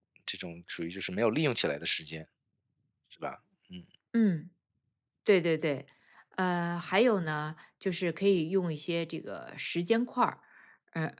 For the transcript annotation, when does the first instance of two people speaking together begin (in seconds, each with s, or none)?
none